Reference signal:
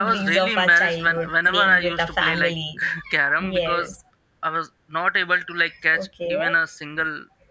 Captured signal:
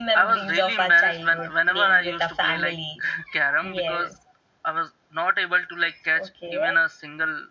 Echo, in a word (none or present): present